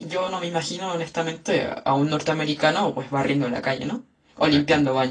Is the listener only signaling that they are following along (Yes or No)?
No